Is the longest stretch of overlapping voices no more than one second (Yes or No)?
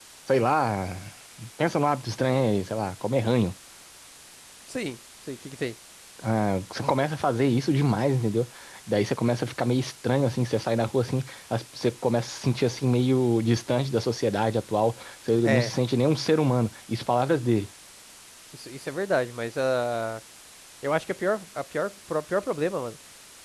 Yes